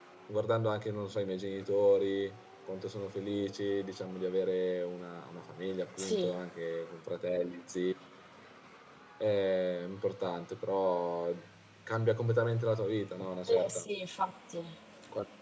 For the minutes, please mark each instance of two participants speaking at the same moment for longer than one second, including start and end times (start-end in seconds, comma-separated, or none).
none